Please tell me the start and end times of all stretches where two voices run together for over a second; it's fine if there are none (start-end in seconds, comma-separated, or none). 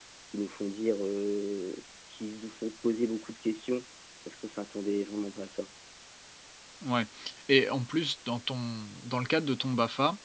none